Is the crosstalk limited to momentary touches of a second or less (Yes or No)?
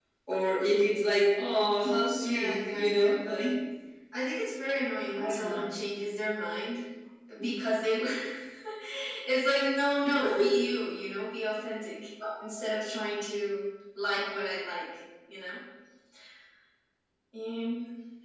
No